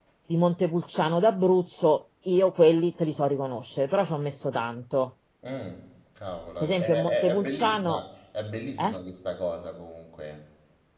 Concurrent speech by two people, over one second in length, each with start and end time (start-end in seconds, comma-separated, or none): 6.6-8.0